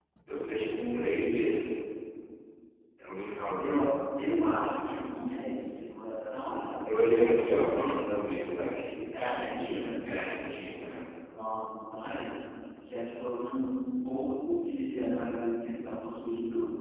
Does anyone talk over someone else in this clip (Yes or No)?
Yes